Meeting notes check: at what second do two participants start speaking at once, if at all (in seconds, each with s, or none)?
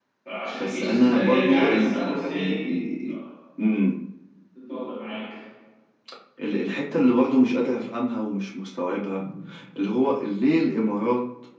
0.6 s